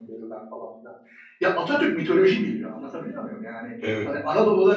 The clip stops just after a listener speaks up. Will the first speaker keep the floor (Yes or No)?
Yes